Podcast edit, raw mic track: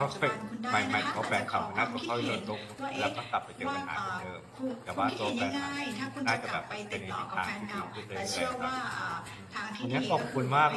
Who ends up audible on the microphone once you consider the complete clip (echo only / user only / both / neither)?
both